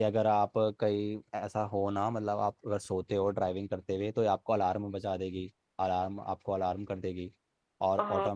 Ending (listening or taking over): listening